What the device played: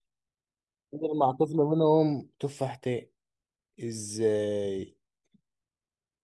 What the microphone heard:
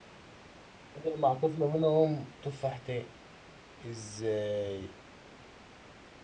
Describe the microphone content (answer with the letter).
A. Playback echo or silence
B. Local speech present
A